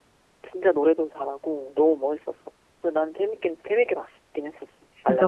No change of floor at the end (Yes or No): No